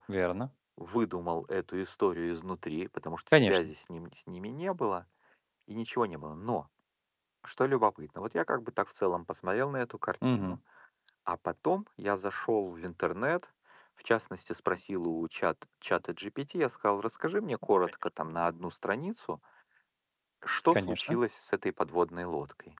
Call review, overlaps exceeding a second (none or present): none